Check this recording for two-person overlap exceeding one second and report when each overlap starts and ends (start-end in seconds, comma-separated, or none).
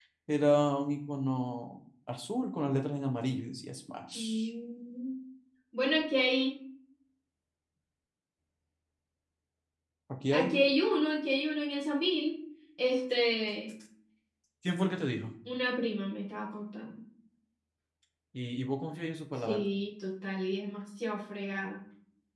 none